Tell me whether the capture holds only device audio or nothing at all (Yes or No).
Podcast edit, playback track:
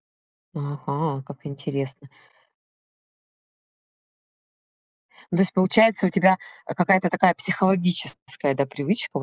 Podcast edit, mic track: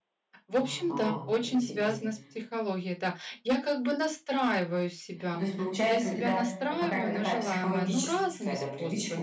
No